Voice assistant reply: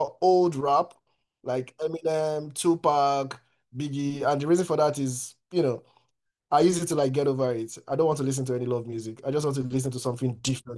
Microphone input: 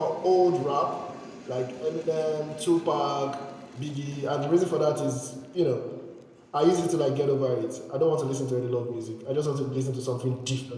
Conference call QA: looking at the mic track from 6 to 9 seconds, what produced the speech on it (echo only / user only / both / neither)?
echo only